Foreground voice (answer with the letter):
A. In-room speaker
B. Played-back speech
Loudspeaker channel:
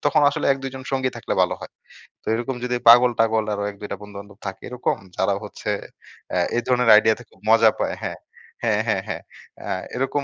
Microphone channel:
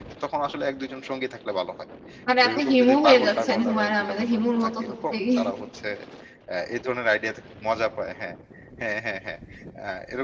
A